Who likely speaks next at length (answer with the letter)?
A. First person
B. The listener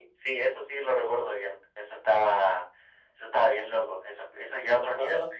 B